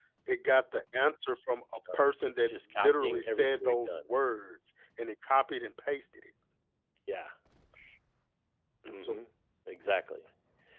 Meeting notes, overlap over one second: present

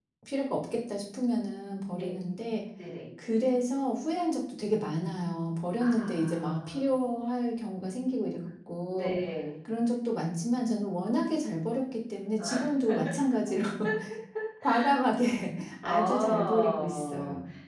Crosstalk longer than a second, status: present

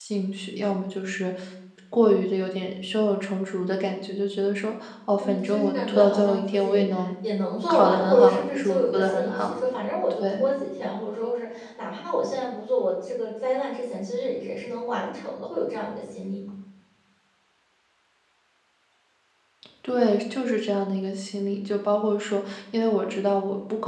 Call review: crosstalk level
present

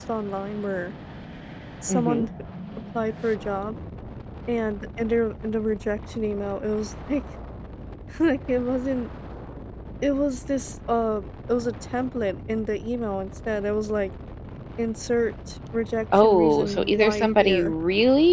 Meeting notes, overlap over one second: present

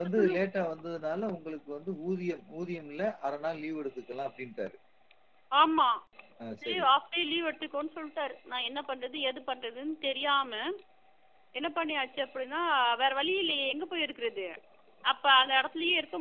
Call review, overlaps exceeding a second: none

